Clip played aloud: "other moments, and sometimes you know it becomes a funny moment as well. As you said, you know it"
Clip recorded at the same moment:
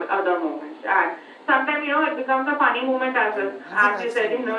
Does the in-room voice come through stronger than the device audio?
No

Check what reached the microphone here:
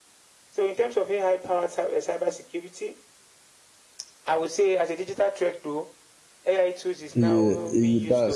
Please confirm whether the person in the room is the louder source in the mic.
Yes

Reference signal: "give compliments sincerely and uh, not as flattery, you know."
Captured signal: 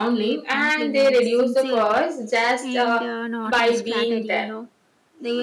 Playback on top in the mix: No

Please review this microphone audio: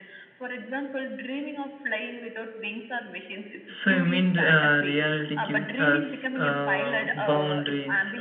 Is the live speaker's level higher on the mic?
Yes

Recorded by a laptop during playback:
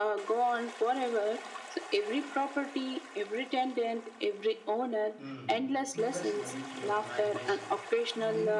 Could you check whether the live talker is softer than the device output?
Yes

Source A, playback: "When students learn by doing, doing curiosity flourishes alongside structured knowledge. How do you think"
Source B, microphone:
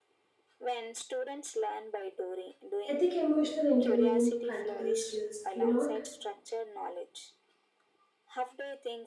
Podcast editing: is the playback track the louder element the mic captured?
No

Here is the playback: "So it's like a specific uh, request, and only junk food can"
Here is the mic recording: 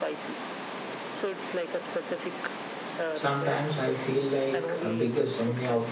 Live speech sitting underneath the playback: No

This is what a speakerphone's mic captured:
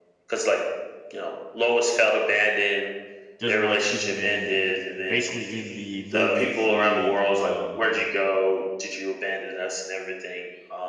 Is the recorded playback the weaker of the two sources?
No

